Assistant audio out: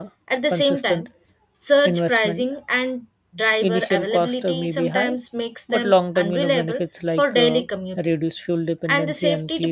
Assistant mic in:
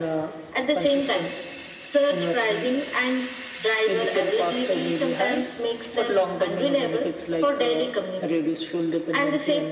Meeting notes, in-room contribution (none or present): none